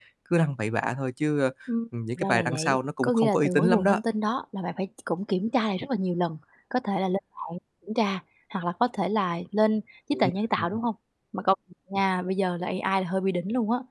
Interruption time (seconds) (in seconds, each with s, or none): 2.1 s